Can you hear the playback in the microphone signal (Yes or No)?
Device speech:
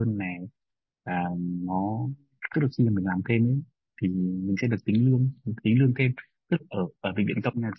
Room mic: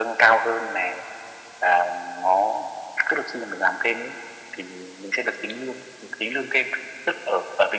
Yes